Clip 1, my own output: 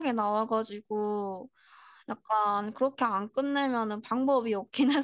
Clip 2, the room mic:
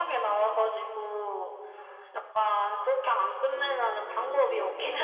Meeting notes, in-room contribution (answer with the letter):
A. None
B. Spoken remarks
B